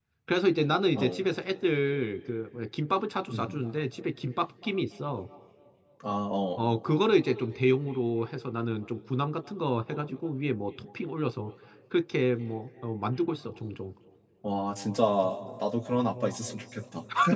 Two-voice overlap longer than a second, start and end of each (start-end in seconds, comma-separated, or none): none